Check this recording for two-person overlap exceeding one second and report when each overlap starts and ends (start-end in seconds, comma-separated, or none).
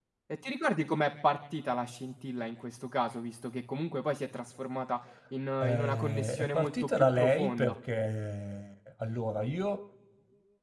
5.6-7.8